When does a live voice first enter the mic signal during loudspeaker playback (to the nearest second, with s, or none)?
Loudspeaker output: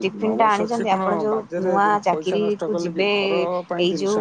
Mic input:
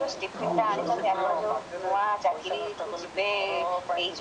0 s